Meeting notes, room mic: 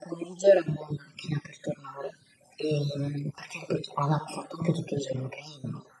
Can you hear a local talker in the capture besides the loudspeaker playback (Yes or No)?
No